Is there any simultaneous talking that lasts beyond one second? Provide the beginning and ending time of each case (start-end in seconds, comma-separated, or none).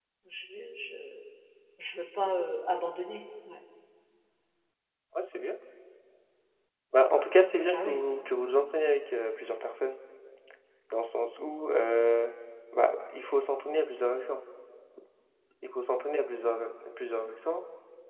none